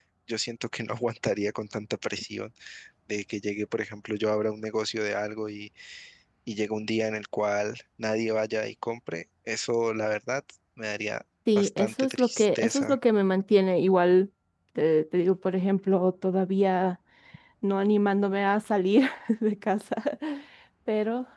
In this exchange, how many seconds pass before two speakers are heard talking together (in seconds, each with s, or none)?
11.5 s